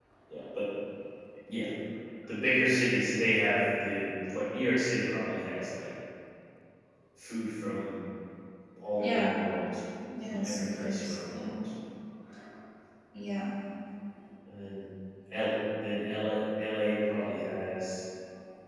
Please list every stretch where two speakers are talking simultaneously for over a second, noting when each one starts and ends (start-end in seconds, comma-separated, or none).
10.2-11.5